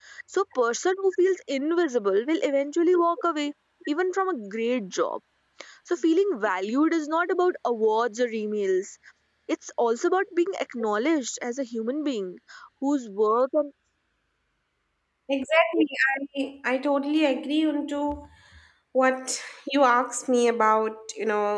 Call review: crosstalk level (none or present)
none